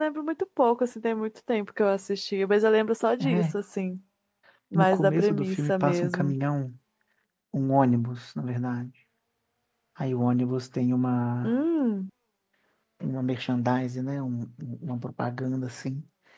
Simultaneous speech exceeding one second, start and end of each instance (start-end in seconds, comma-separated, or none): 4.7-6.3